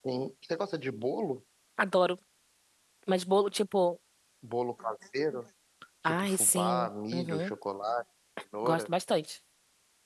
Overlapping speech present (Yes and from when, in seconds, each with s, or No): Yes, from 6.0 s